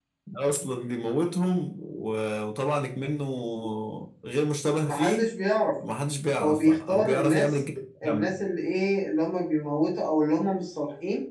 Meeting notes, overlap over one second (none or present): present